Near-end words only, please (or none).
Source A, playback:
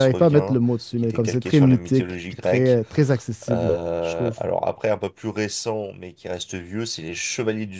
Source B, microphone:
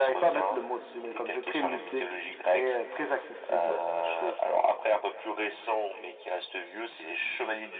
none